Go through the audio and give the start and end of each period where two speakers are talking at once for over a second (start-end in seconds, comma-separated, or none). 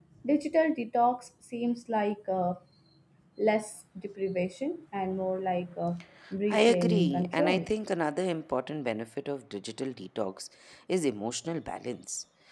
6.5-7.7